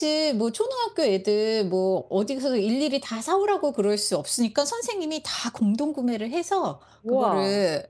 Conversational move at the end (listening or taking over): listening